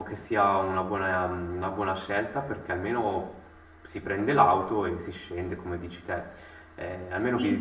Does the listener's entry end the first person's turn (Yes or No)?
No